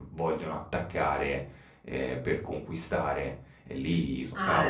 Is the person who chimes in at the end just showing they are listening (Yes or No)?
No